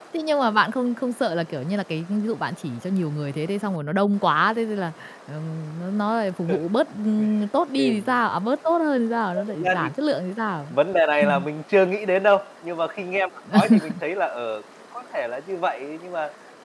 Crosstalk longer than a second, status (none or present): none